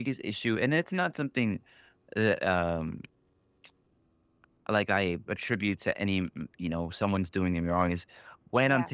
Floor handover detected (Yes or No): No